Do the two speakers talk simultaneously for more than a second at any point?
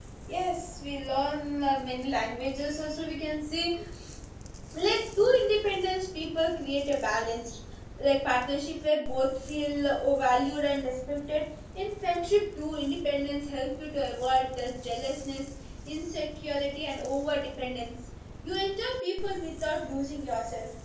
No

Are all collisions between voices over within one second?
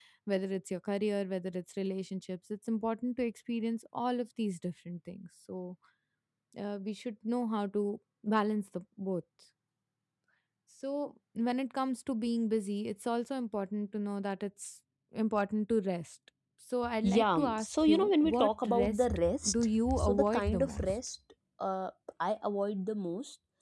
No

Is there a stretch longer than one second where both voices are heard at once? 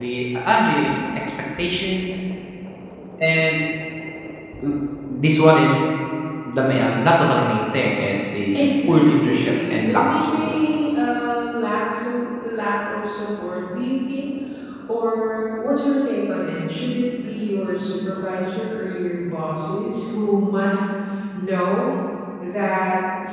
Yes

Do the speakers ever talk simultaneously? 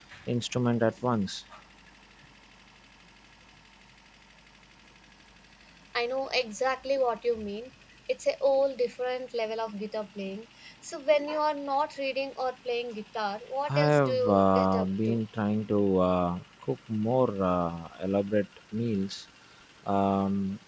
Yes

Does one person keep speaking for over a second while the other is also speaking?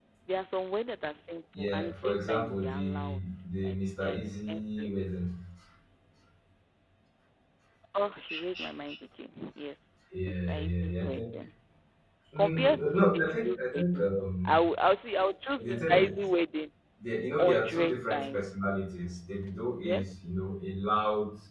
Yes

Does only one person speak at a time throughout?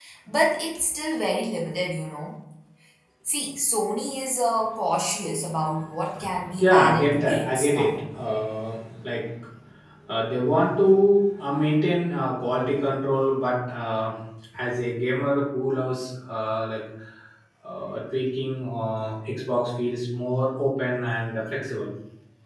No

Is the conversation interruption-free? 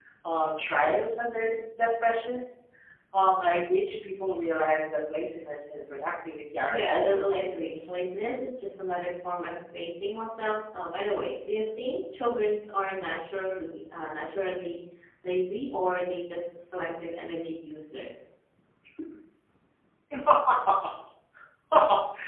No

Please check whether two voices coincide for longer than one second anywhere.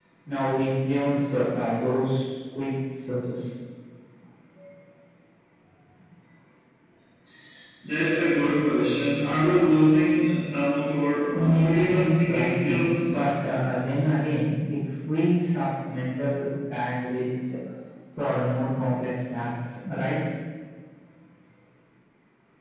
Yes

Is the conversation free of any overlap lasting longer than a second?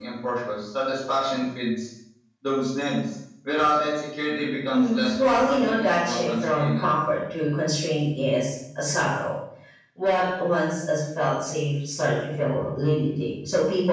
No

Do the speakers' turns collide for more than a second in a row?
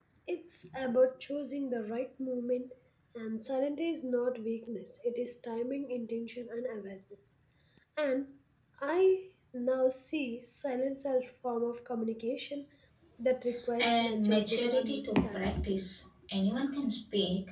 Yes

